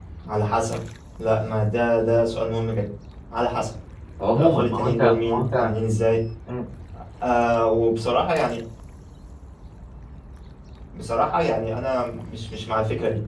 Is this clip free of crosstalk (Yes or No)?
No